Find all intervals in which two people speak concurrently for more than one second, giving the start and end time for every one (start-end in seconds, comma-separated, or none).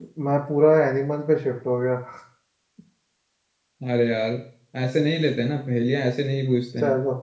none